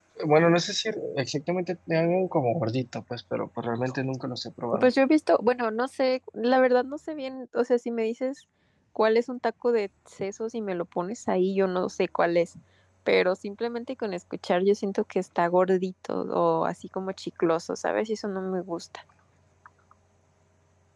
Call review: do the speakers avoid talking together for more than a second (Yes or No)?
Yes